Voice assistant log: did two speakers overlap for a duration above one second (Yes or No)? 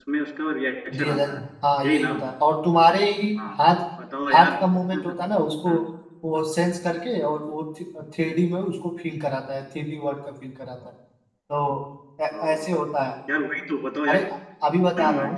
No